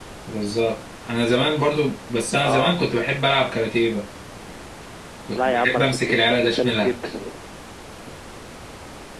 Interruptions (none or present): present